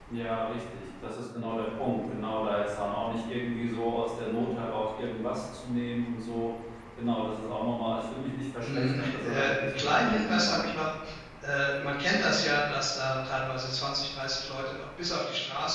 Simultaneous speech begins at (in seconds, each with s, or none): 8.6 s